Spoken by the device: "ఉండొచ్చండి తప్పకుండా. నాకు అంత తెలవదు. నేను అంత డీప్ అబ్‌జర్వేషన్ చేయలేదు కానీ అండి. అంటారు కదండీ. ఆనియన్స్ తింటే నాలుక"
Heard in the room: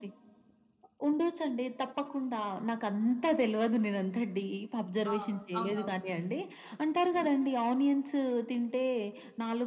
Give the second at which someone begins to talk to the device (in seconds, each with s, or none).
5.1 s